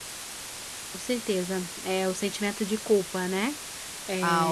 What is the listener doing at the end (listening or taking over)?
taking over